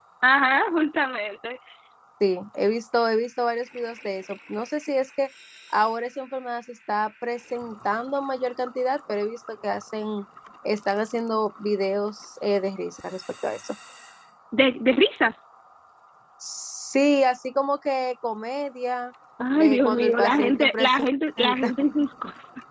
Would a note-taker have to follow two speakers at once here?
Yes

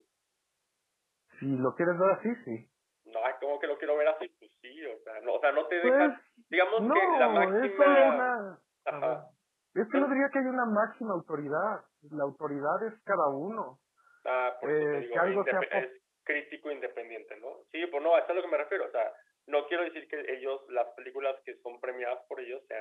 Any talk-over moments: Yes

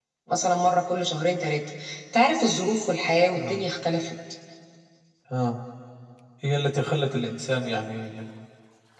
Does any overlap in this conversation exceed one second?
No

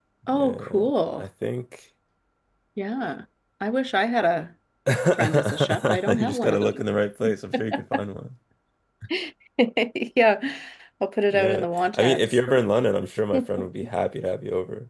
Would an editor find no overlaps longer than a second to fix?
No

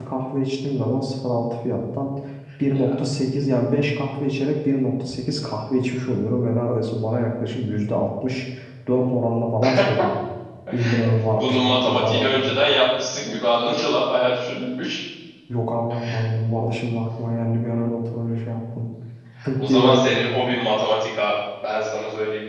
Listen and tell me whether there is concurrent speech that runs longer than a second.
Yes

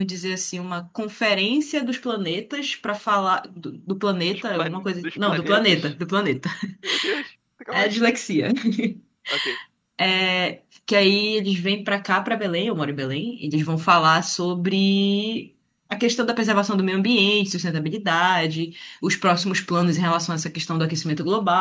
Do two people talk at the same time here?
Yes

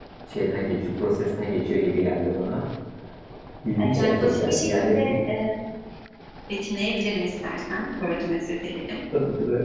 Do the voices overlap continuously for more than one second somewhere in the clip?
Yes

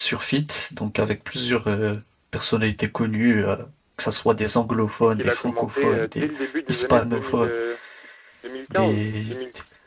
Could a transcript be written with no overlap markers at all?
No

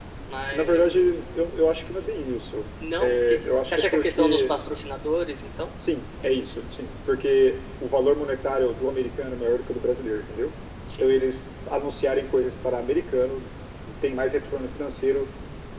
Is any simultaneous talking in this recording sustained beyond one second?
Yes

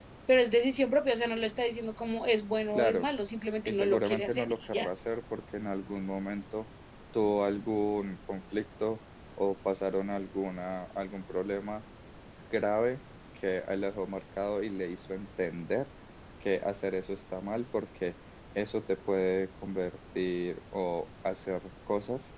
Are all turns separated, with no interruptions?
No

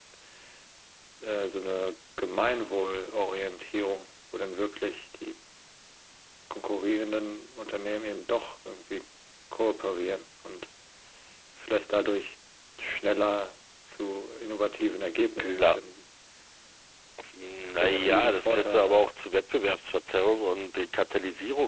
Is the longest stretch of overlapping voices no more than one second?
No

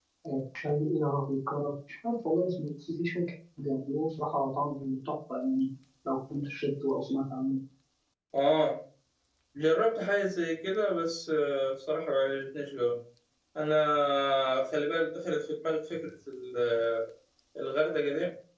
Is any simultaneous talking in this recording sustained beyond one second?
No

